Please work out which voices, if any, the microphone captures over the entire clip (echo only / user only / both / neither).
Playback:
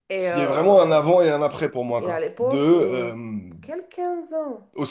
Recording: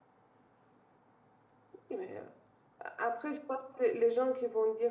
user only